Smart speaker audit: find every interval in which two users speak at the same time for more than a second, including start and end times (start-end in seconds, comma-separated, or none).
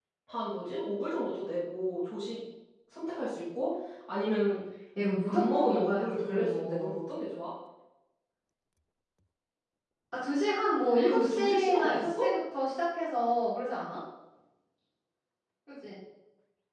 5.3-6.9, 11.0-12.3